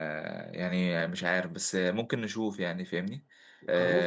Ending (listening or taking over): listening